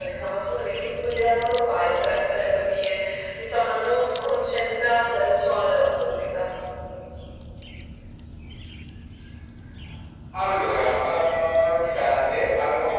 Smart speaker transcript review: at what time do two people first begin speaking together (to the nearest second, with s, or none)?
none